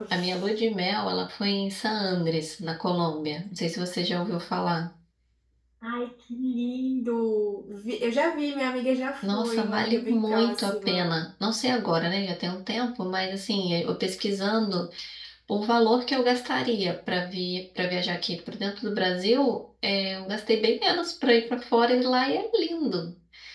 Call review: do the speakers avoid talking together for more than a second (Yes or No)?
No